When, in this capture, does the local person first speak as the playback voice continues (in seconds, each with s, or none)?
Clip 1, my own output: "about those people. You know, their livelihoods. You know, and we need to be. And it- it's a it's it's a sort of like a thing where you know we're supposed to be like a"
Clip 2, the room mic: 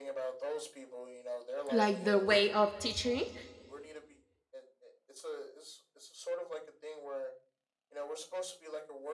1.7 s